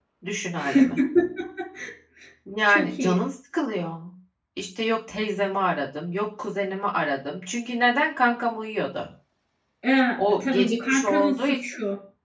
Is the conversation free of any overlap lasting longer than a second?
No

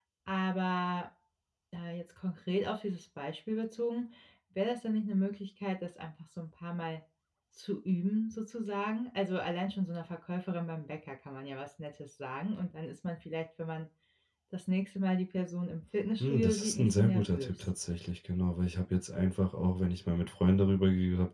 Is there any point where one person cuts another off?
Yes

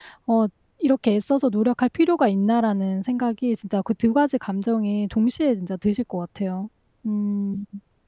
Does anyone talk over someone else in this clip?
No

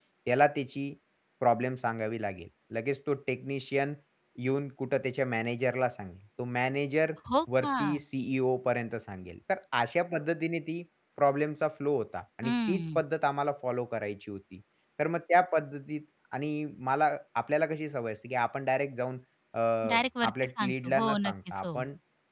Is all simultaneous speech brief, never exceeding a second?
No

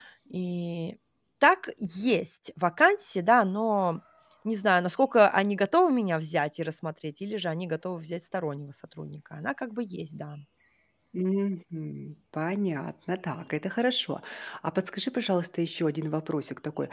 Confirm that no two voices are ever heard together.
Yes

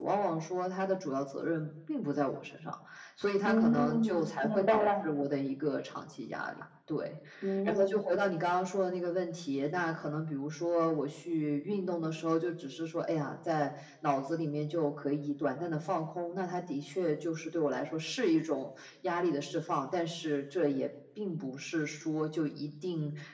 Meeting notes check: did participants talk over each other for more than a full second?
Yes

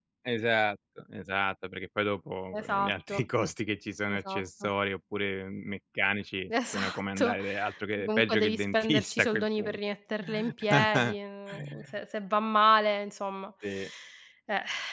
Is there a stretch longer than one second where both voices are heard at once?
Yes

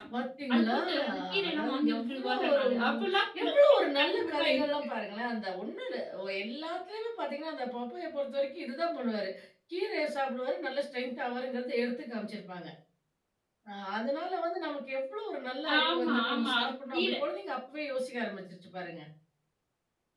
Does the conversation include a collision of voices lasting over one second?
Yes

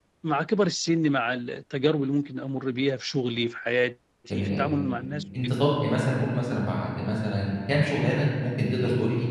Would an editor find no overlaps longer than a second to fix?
Yes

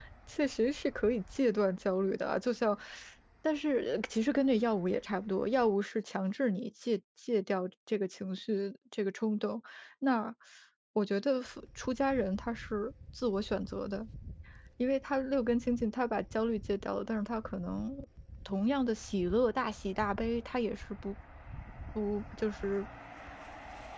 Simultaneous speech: No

